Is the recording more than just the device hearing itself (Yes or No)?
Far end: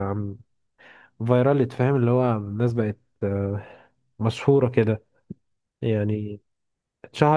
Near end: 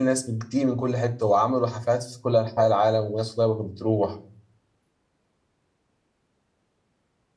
Yes